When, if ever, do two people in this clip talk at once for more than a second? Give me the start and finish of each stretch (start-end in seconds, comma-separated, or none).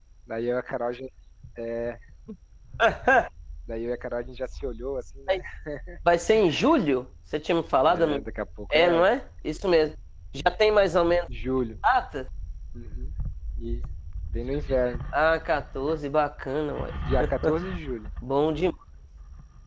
none